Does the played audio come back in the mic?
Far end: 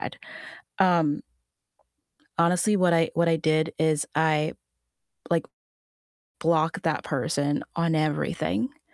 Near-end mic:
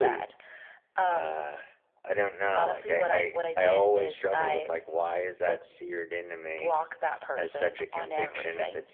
Yes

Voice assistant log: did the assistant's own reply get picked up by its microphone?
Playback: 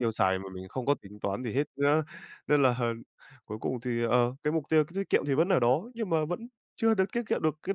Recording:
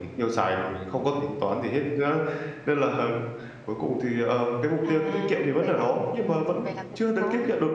Yes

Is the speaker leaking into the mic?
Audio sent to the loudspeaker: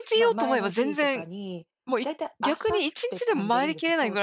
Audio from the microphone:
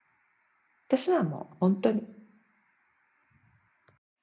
No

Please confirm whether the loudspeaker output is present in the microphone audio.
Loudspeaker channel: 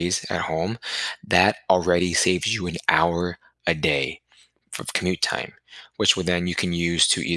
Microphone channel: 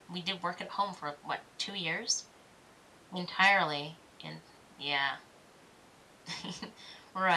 No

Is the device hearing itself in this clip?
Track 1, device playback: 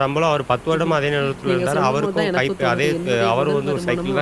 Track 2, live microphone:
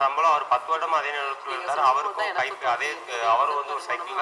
Yes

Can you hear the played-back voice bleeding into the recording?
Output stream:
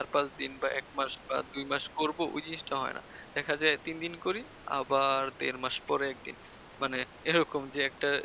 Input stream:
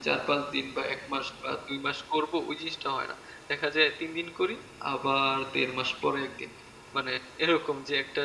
Yes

